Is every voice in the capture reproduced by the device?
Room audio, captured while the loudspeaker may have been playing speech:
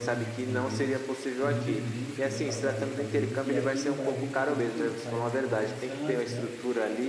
No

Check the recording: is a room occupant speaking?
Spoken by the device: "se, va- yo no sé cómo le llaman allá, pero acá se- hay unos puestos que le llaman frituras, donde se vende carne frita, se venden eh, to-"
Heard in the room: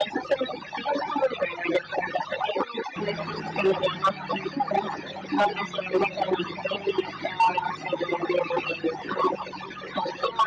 No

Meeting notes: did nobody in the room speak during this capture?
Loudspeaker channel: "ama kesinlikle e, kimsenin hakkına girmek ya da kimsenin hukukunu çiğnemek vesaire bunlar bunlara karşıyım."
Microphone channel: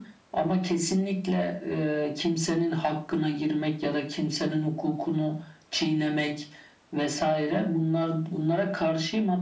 Yes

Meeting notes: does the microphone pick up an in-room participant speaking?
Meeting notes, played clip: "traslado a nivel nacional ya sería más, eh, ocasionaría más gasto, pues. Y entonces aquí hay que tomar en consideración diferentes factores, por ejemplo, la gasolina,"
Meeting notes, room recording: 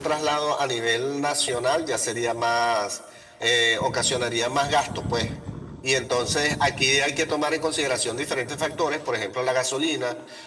No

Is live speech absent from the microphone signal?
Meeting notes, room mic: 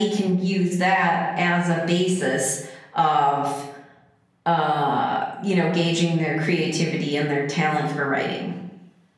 Yes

